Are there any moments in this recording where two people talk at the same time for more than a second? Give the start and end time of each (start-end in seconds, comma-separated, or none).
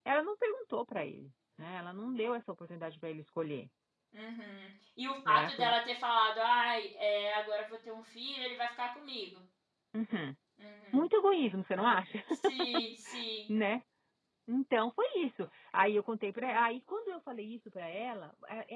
none